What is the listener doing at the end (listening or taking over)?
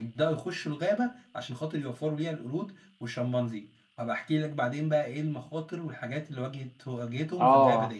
taking over